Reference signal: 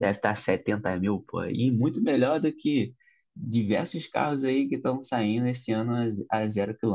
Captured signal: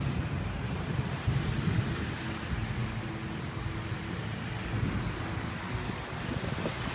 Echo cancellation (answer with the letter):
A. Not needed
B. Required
A